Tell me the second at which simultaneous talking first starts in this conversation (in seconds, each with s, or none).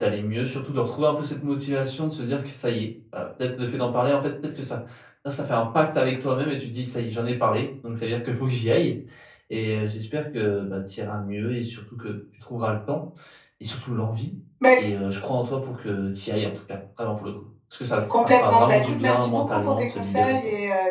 18.1 s